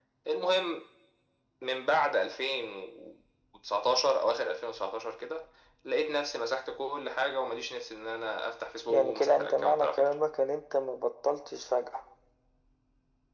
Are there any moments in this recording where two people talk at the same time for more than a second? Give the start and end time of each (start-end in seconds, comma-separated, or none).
8.9-10.1